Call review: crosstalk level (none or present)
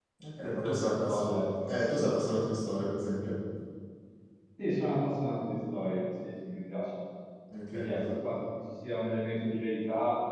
present